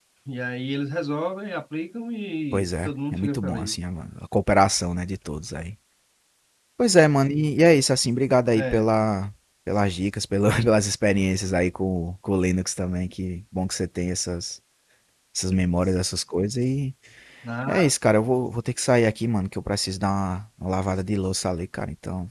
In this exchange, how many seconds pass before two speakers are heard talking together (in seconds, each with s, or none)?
2.5 s